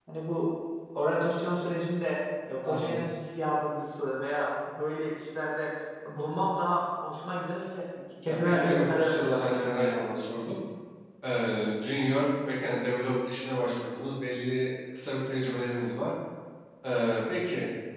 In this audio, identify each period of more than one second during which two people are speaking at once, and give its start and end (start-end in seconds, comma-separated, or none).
8.3-10.0